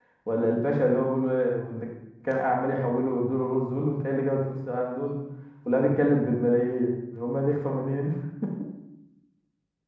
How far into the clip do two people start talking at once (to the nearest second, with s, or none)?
none